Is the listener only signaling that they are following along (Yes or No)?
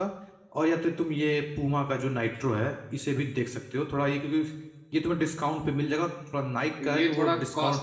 No